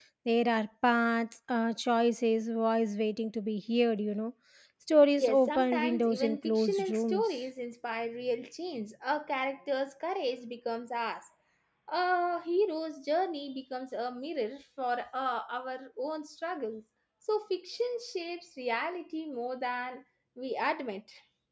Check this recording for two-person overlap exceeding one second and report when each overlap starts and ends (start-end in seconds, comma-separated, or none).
5.2-7.4